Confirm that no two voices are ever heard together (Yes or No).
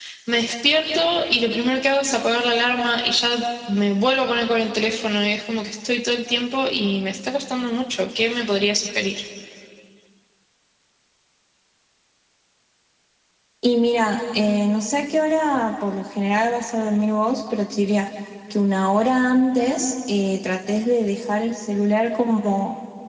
Yes